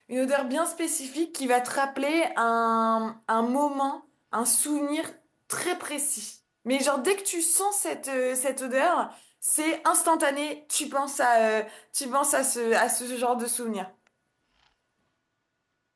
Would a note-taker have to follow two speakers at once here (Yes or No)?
No